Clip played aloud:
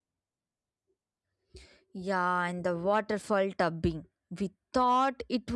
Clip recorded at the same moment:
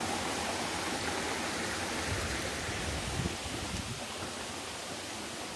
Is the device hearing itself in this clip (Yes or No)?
No